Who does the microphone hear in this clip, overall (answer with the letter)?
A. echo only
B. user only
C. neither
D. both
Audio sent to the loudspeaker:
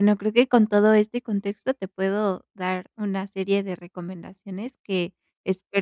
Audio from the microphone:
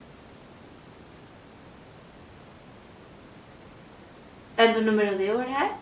B